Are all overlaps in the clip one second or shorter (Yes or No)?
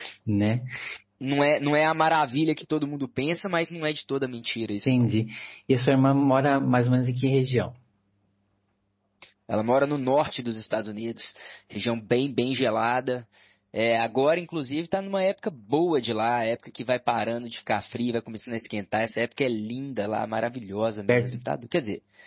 Yes